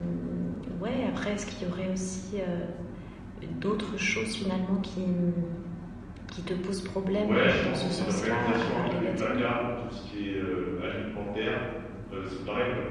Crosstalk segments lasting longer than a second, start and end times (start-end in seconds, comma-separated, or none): 7.2-9.4